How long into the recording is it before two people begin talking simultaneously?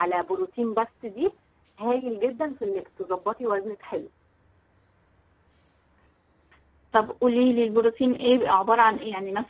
none

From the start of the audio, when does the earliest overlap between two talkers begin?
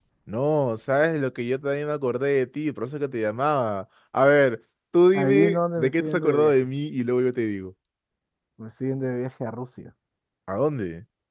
5 s

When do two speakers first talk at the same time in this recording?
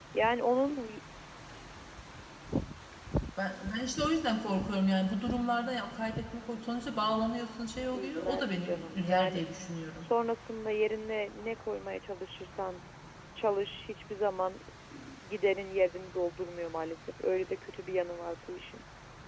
8 s

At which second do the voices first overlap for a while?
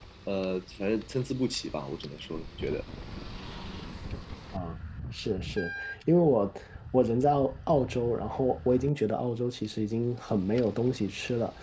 none

